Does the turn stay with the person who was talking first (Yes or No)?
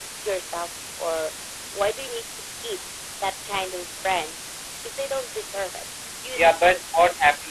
No